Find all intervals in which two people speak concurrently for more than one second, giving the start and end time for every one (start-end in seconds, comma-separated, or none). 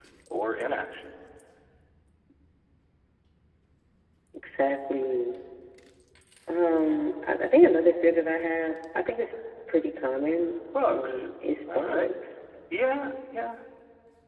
none